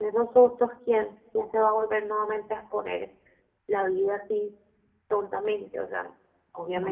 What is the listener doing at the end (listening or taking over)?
taking over